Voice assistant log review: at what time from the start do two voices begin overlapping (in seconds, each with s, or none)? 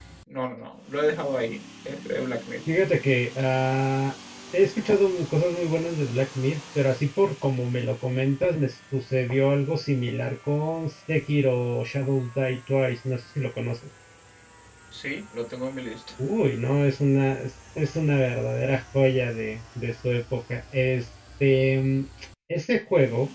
none